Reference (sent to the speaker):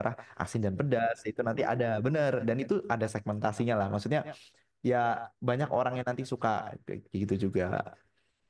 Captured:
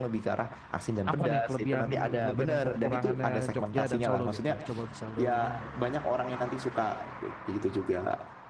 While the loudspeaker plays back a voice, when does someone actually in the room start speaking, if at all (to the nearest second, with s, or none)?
1 s